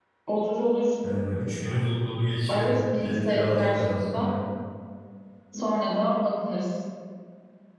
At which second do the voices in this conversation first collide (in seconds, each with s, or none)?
2.5 s